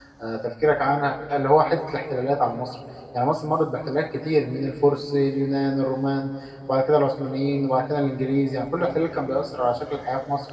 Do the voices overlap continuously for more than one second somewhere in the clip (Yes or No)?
No